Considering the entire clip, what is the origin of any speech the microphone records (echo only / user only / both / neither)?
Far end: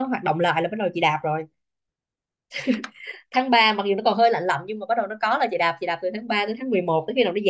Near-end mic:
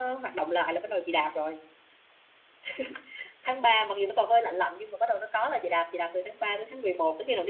echo only